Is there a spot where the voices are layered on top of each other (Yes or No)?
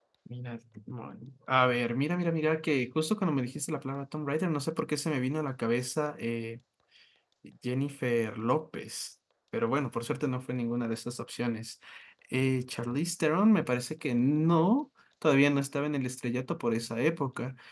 No